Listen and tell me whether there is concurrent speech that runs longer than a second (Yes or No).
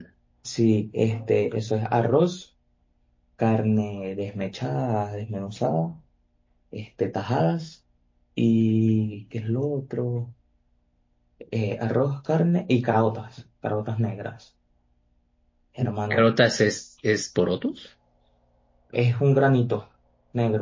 No